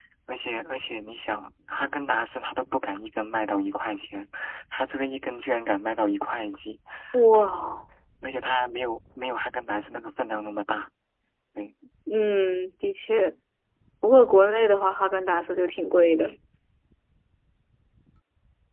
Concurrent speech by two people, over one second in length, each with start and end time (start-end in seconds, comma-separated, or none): none